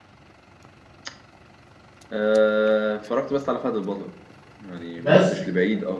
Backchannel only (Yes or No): Yes